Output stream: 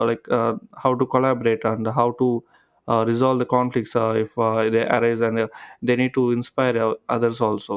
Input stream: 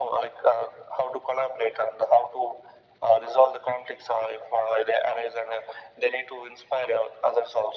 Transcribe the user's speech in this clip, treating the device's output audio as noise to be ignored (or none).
none